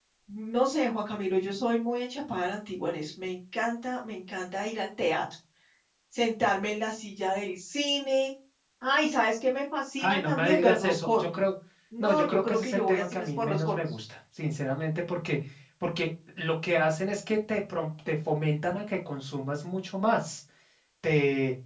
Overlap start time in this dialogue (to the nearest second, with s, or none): 10 s